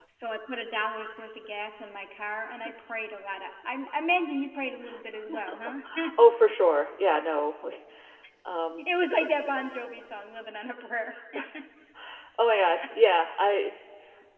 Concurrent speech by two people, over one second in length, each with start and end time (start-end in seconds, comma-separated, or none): none